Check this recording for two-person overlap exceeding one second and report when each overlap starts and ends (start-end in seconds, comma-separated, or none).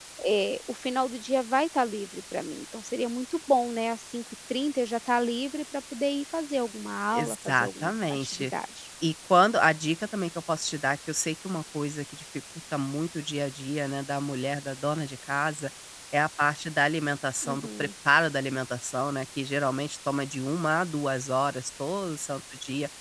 7.1-8.4